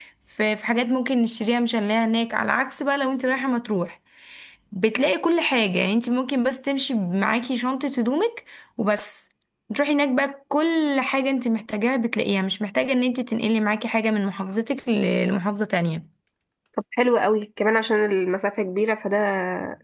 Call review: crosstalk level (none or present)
none